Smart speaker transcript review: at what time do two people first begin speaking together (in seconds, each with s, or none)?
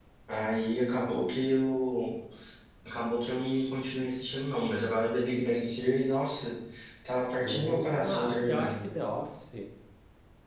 7.4 s